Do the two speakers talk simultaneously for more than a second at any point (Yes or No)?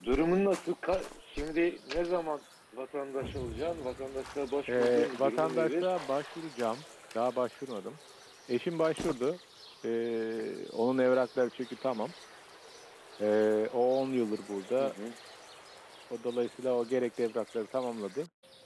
Yes